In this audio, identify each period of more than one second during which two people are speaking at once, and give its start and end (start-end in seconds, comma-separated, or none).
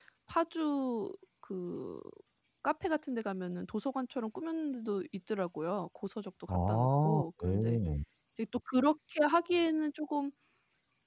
6.5-7.8